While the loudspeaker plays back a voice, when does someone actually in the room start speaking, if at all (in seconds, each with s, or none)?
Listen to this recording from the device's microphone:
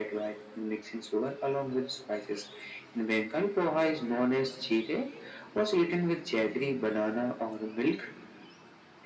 none